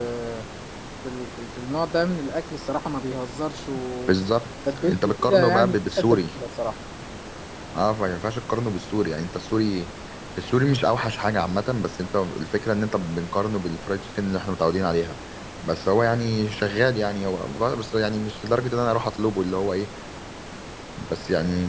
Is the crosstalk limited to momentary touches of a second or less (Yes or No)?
No